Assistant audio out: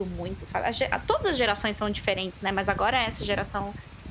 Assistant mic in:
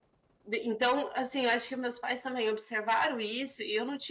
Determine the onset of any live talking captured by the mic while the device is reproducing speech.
0.4 s

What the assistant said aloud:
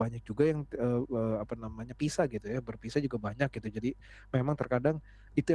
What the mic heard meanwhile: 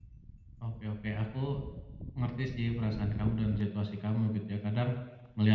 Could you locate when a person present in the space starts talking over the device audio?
0.6 s

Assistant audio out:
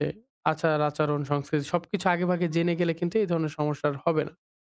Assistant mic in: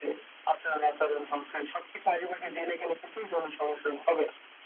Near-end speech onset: none

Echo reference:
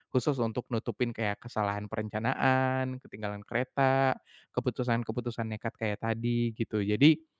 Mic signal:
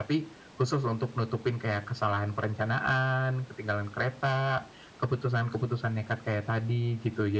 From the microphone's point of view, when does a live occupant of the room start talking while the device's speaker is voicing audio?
none

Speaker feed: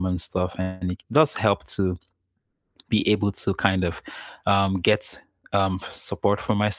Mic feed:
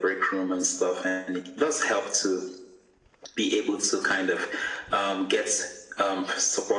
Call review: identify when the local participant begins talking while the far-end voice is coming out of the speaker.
none

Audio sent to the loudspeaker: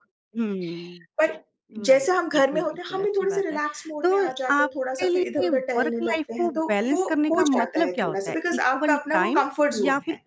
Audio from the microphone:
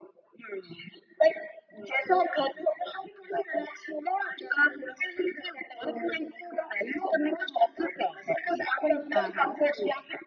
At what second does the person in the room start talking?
9.1 s

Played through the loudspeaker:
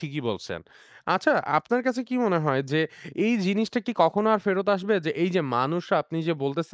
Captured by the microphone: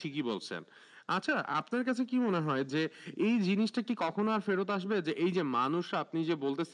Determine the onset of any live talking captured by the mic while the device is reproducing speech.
none

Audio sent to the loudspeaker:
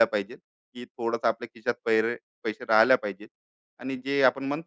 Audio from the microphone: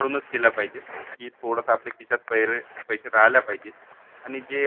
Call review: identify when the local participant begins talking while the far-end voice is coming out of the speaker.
none

